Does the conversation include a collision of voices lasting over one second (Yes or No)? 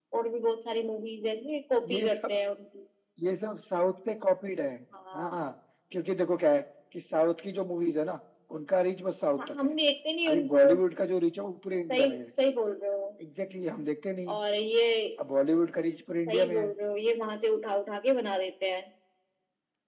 No